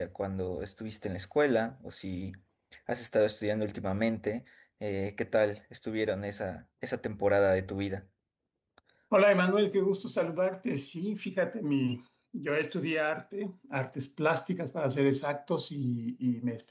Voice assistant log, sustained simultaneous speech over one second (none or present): none